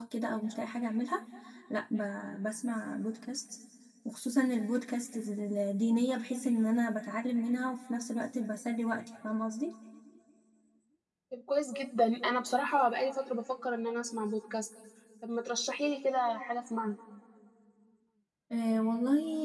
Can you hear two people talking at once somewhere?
No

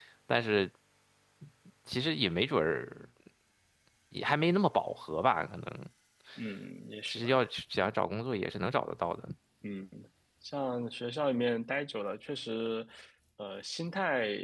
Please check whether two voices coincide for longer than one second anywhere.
No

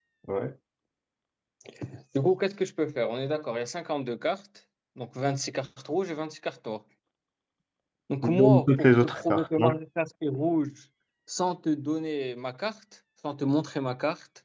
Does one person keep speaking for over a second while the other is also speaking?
Yes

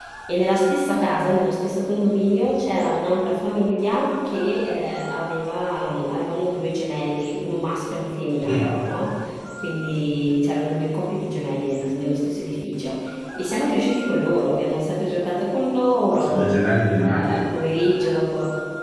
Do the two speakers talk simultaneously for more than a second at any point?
No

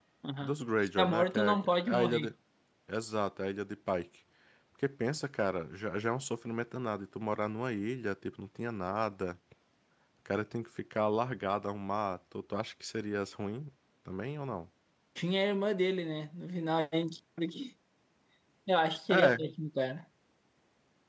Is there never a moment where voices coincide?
No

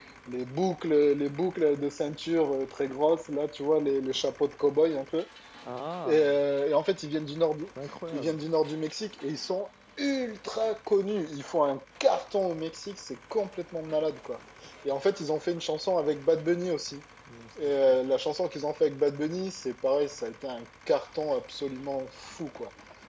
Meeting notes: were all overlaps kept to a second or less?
Yes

